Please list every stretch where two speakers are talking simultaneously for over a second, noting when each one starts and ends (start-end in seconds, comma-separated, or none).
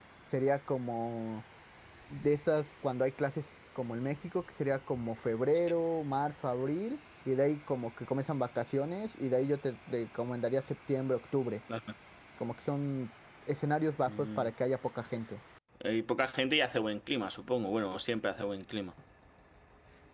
none